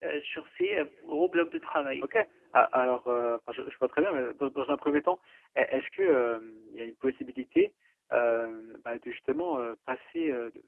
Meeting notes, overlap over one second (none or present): none